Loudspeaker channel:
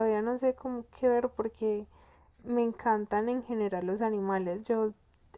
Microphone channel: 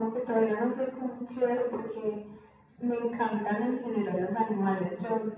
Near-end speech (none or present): none